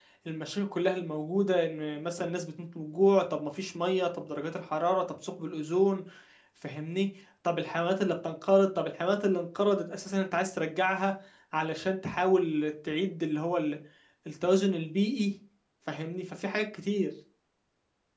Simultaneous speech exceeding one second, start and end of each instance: none

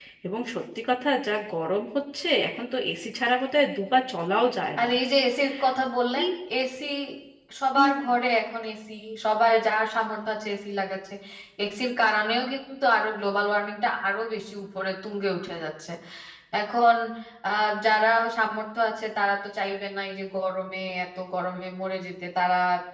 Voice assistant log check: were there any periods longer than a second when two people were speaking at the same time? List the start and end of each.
none

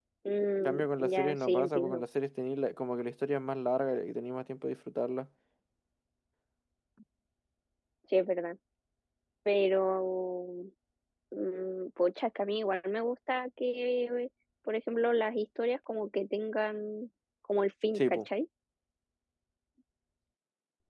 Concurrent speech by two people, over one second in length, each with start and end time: 0.7-2.0

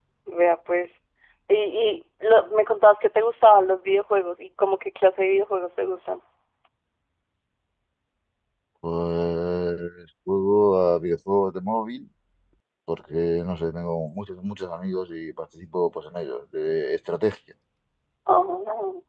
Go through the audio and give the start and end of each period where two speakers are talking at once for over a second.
none

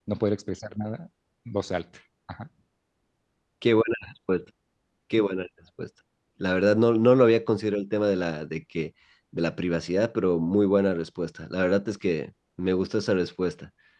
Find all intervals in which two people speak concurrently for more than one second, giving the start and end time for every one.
none

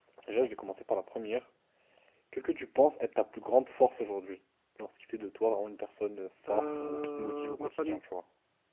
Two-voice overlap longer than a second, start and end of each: 6.5-8.0

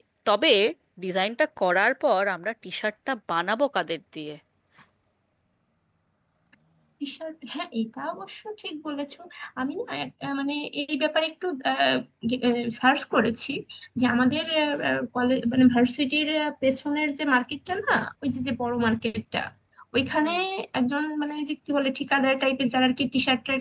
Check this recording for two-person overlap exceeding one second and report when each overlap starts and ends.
none

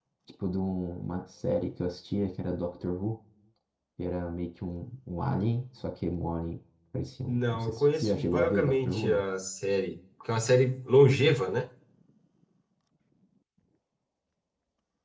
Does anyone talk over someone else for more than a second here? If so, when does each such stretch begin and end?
7.3-9.2

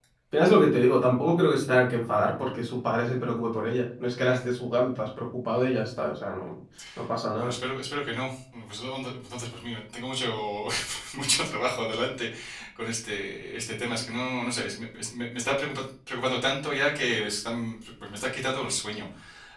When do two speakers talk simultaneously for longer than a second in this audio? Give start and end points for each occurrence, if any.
none

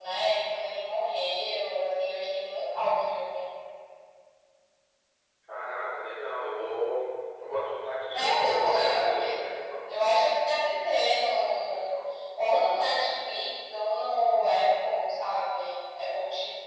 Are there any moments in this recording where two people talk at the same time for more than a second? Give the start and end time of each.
8.1-9.7

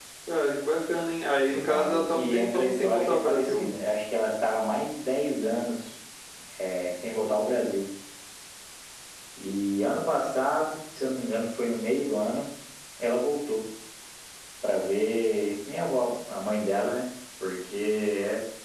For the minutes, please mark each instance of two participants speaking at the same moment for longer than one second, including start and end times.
1.5-3.7

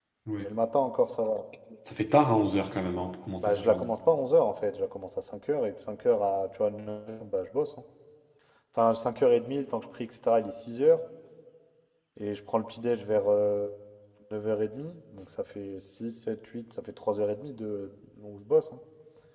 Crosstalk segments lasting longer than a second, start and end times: none

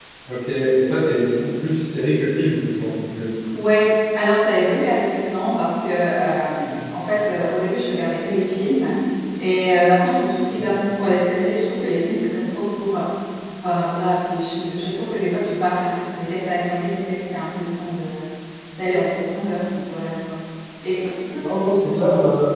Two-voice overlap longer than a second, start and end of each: none

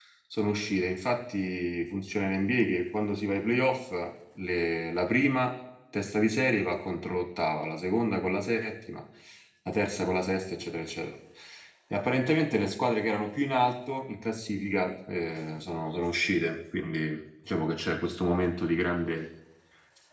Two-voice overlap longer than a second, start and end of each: none

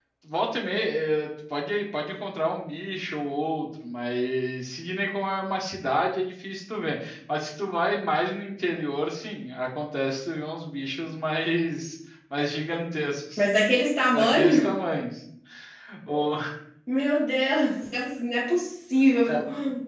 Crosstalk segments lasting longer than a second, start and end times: none

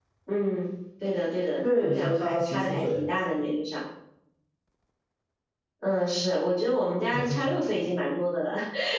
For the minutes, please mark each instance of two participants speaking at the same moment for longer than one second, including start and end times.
1.6-3.0

